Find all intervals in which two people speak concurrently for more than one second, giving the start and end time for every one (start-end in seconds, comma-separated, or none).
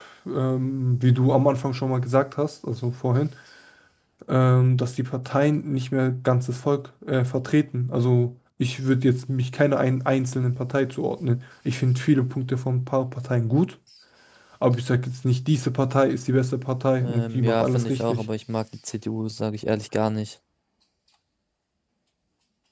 17.0-18.3